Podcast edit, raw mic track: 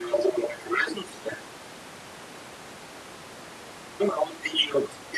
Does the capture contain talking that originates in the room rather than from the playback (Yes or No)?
No